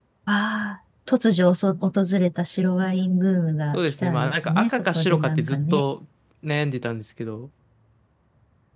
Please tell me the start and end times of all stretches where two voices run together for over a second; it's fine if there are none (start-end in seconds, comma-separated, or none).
3.7-5.8